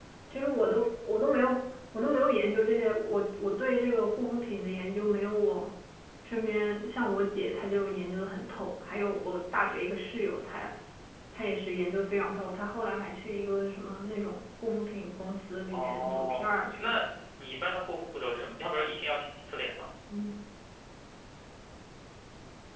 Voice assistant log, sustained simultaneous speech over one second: present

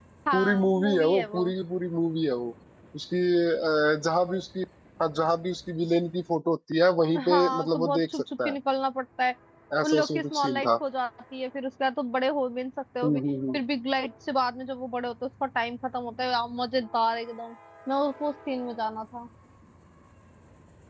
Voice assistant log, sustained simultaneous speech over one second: present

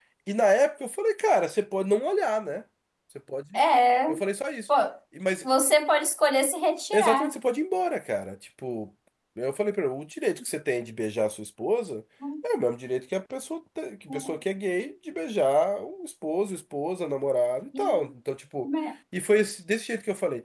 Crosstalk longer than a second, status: none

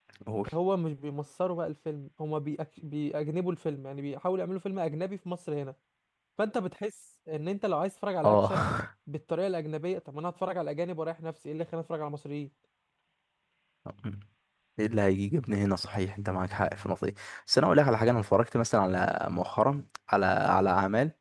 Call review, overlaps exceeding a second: none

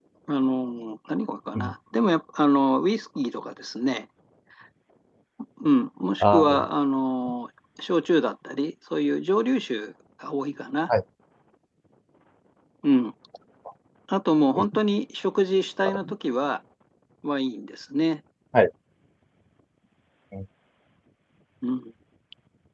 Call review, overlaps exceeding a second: none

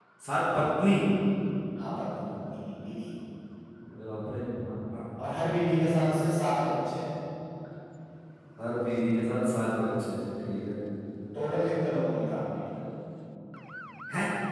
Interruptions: none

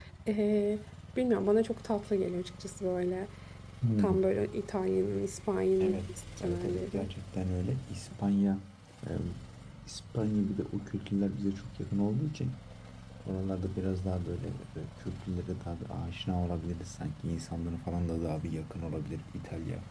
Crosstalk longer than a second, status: present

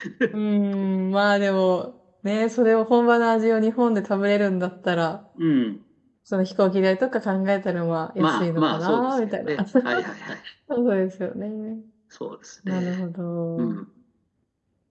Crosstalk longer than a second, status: present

